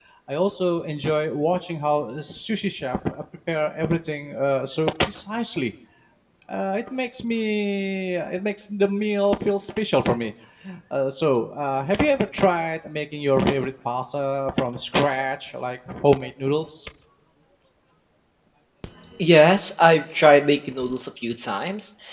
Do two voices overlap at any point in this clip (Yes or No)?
No